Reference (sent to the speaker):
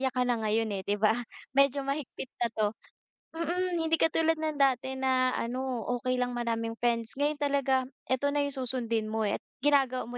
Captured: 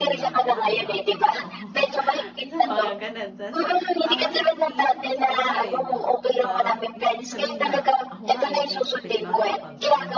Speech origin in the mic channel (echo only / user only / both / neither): both